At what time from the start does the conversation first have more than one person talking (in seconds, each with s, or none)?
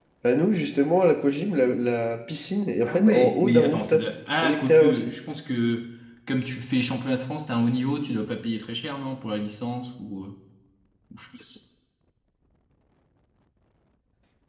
2.8 s